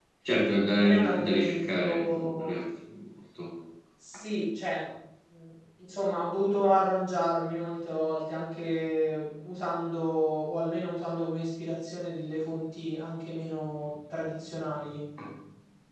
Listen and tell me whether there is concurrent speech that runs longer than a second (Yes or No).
Yes